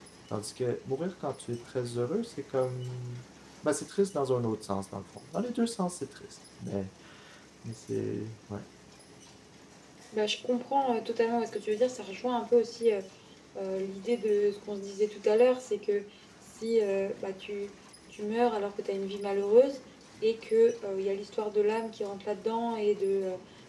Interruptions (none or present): none